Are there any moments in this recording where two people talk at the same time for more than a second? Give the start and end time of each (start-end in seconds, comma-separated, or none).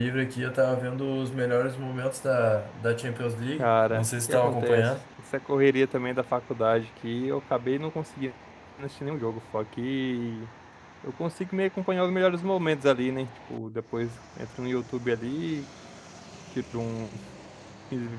3.6-4.9